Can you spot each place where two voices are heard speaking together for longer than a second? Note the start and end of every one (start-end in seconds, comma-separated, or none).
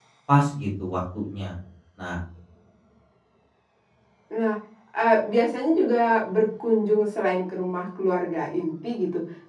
none